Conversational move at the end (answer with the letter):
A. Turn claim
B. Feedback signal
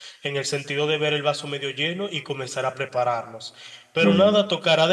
B